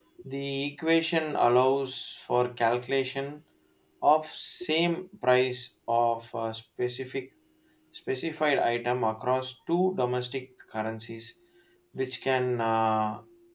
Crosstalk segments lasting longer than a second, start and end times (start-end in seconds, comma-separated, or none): none